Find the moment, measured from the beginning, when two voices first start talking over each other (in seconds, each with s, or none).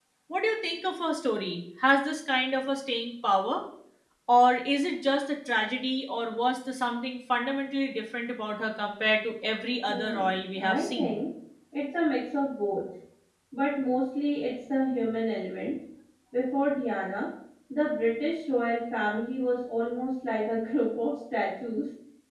9.9 s